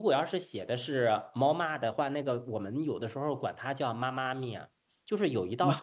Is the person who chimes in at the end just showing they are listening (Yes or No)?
Yes